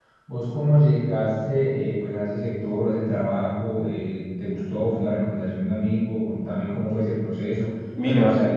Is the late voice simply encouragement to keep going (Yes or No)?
No